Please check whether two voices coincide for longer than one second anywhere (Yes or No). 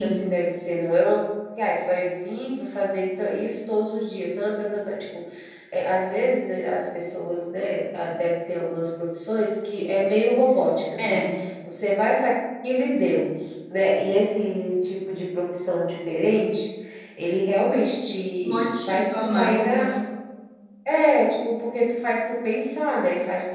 Yes